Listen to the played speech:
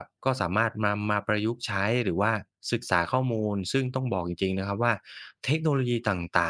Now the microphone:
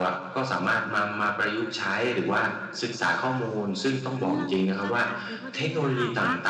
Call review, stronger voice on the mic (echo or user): echo